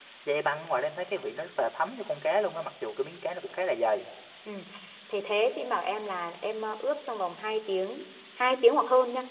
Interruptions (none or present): none